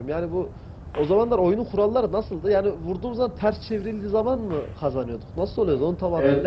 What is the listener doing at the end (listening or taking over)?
taking over